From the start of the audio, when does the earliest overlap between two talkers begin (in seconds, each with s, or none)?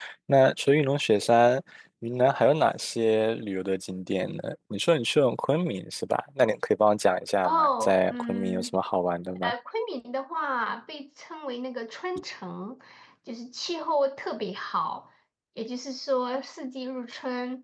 7.4 s